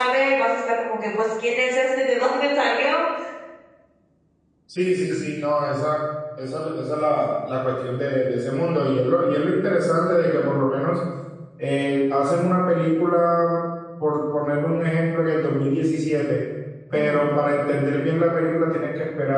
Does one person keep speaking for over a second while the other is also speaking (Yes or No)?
No